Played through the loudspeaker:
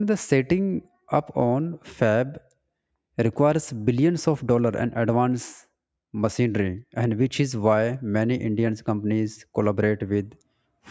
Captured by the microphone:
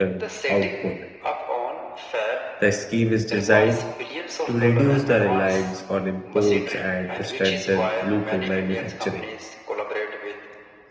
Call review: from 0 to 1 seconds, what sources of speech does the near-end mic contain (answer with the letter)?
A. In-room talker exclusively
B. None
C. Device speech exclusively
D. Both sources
D